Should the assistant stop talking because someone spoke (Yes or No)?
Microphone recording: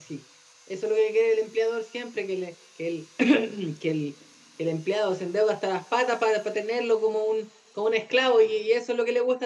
Yes